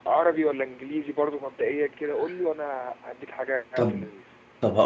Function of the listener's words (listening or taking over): taking over